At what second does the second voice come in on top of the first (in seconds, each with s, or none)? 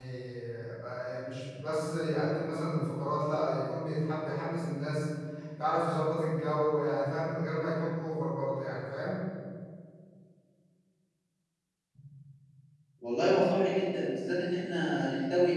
none